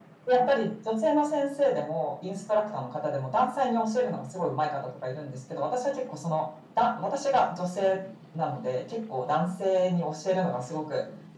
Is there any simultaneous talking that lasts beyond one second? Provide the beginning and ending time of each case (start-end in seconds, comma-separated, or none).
none